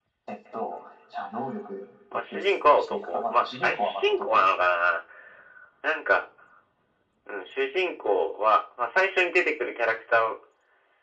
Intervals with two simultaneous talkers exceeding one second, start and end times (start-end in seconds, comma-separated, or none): 2.1-4.5